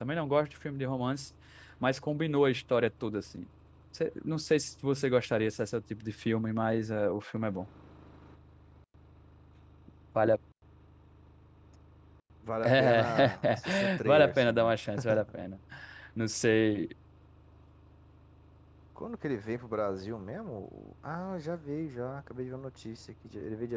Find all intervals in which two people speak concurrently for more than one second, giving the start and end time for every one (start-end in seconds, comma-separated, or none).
12.6-14.8